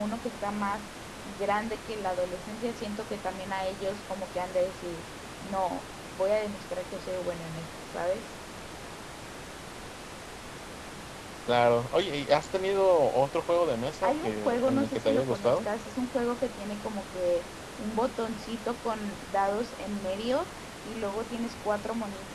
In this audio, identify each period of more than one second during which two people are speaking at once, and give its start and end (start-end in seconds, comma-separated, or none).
14.0-15.6